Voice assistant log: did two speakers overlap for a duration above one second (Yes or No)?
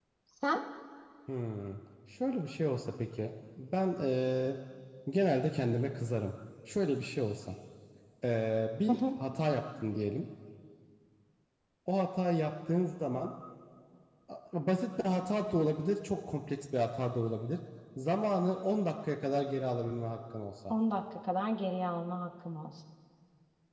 No